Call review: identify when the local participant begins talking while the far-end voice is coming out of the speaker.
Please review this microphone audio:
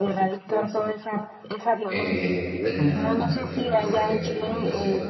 2 s

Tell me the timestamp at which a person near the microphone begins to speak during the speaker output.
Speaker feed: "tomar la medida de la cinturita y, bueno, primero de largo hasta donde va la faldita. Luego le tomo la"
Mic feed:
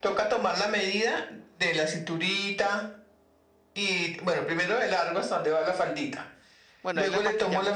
7 s

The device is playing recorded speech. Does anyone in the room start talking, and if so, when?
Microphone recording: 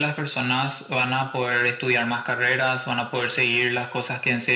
none

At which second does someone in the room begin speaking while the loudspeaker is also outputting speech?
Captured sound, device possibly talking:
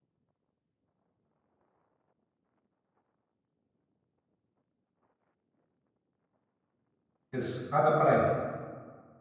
7 s

